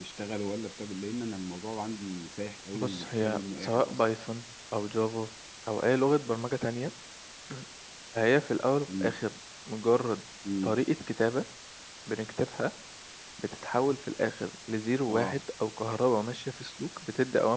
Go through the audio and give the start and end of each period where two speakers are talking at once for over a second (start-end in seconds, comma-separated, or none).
2.7-4.0